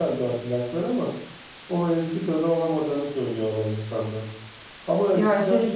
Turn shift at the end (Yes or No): No